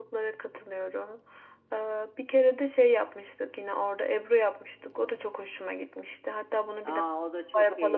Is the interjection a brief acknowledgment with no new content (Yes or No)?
No